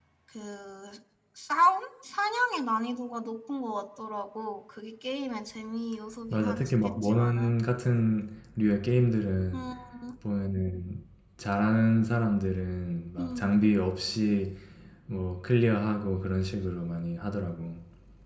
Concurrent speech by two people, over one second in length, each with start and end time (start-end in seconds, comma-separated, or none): 6.3-7.5